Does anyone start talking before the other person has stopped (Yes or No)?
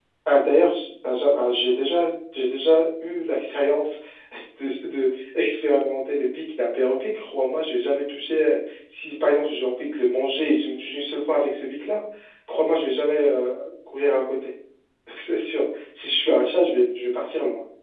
No